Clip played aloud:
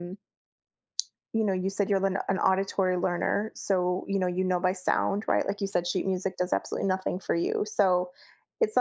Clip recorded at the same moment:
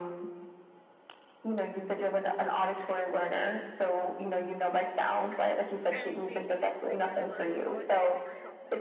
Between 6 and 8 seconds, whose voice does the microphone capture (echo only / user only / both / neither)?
both